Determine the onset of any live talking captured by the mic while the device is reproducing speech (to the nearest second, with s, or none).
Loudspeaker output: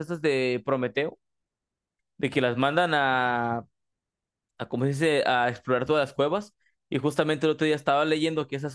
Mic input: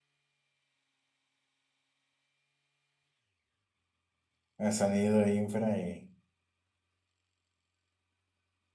5 s